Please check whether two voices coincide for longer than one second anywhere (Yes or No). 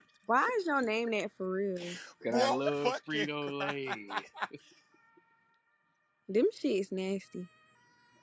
Yes